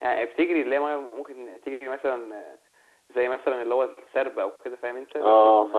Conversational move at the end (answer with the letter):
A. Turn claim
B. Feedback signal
A